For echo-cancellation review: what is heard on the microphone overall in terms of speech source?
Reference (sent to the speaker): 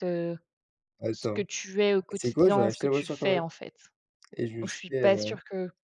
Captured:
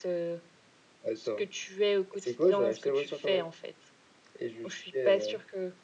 echo only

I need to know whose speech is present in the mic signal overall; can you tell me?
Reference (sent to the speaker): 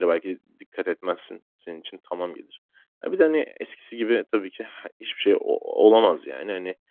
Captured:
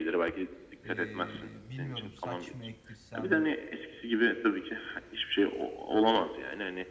both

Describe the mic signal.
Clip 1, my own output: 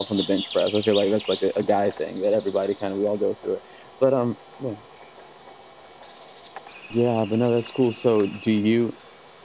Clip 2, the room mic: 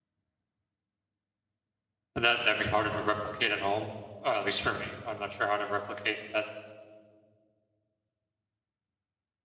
user only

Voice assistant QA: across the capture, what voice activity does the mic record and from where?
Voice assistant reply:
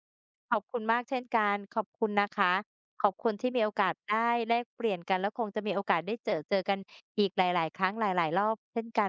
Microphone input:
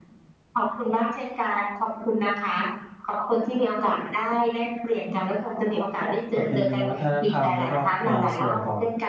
both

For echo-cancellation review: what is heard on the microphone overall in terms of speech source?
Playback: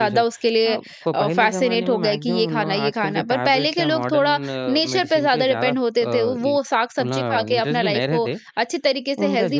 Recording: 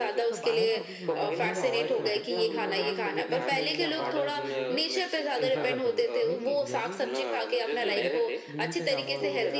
both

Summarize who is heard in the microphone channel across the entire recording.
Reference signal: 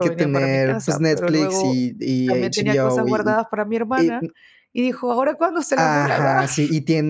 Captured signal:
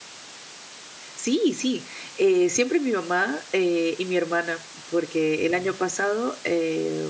user only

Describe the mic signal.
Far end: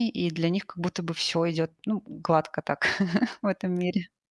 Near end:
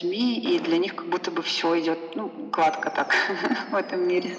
echo only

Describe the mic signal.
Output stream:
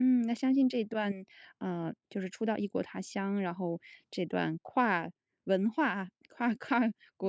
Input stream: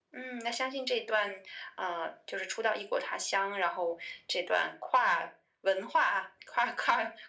echo only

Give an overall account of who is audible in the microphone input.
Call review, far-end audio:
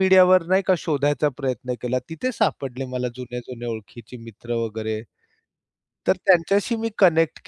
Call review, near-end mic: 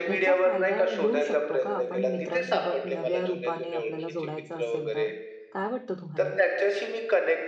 both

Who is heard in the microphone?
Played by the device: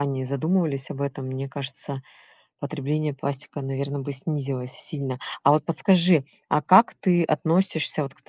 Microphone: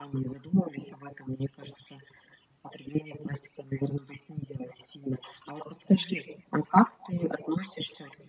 echo only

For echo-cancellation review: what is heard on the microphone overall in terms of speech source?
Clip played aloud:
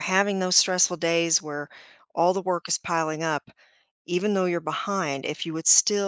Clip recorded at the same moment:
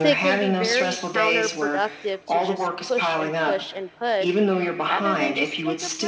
both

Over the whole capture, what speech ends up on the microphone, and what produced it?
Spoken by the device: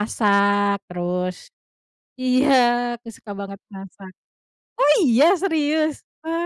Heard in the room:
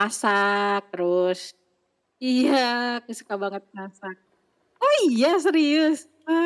echo only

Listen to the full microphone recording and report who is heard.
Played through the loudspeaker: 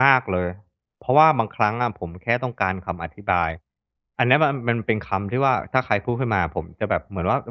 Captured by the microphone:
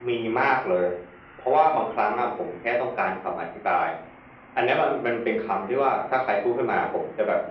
echo only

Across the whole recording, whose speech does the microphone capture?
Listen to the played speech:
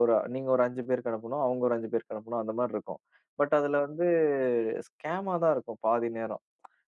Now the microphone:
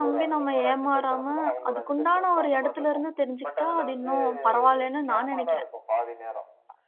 both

